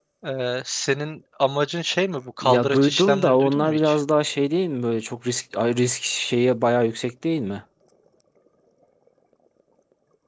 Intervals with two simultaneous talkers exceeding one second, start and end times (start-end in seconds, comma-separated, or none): 2.4-4.0